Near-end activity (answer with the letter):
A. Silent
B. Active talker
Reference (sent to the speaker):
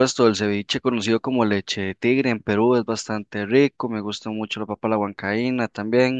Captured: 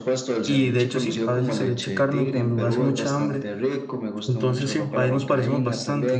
B